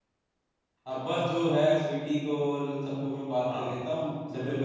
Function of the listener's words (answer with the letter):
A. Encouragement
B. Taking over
B